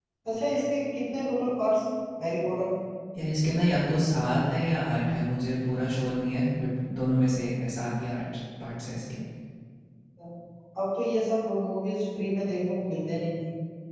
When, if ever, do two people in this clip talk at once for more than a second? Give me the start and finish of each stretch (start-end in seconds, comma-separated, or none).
none